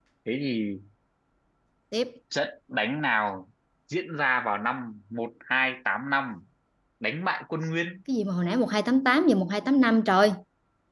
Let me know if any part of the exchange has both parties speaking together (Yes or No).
No